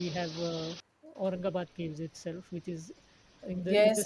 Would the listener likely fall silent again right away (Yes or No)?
No